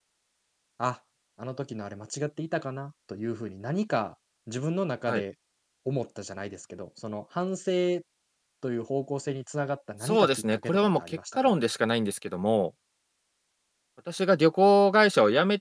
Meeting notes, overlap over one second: present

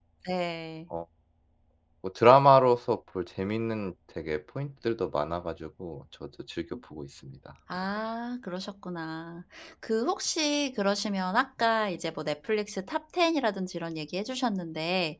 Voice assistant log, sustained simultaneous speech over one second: none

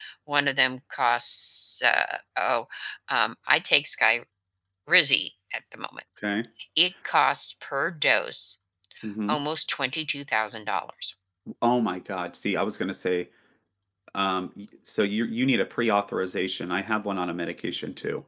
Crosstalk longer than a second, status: none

